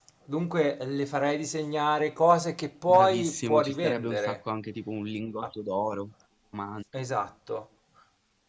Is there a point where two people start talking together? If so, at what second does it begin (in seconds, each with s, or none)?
2.9 s